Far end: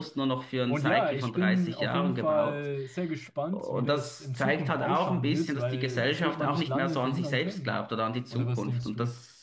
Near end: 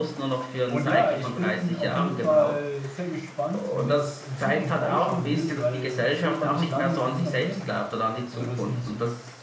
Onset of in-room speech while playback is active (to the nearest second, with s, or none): none